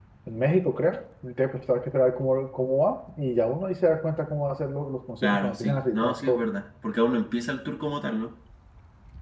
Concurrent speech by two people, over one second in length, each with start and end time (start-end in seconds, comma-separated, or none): 5.2-6.4